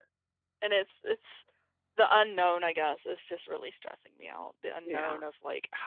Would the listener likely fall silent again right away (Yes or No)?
Yes